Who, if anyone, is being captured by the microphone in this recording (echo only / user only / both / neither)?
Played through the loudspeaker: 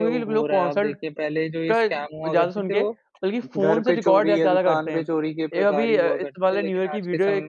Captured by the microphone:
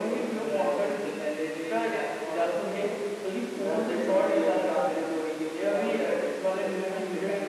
echo only